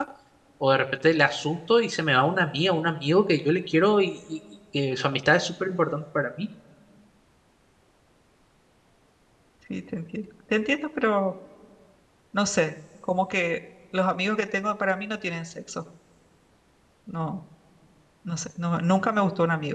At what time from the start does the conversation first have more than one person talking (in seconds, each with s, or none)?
none